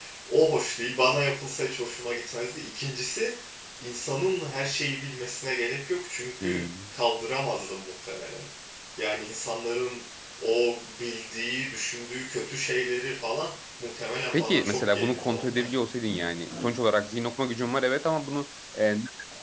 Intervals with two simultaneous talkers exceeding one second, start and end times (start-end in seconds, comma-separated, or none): 14.3-15.7